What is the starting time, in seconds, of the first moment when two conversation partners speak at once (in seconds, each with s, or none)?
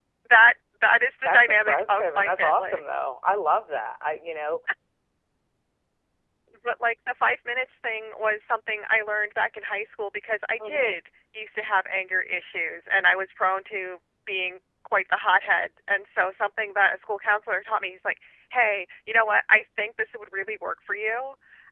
1.2 s